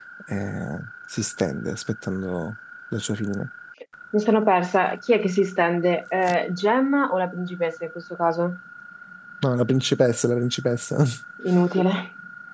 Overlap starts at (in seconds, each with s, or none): none